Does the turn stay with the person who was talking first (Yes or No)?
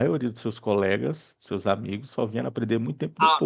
No